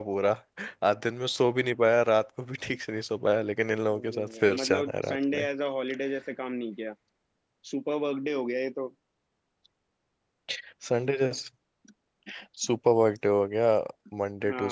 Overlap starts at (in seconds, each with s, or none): 3.9 s